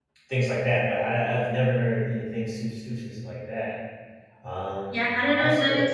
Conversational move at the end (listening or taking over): taking over